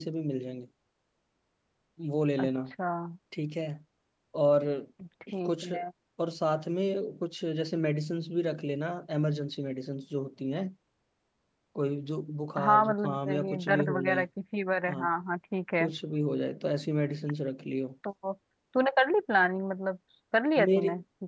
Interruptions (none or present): present